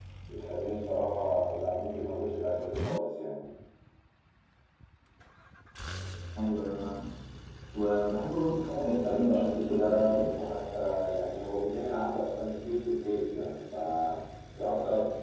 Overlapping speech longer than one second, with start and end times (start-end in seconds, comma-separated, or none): 8.6-10.3